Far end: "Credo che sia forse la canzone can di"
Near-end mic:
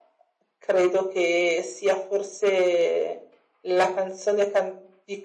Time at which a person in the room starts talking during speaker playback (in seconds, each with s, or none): none